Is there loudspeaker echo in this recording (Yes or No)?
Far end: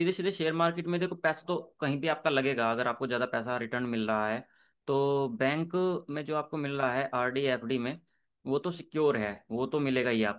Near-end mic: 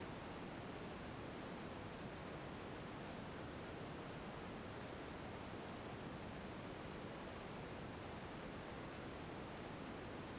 No